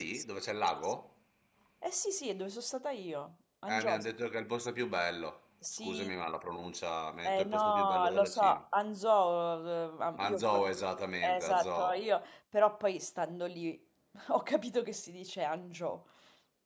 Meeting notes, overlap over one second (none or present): present